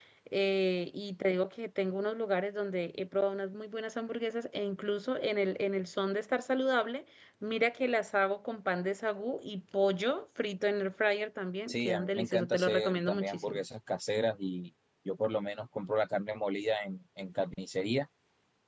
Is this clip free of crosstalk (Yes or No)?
No